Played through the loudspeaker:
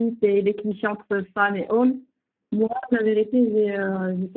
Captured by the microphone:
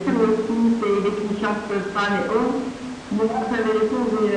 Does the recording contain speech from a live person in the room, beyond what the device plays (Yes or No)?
No